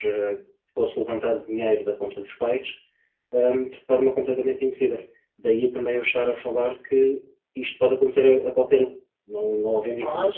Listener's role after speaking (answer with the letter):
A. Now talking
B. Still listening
A